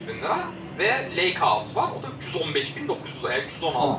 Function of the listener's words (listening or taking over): taking over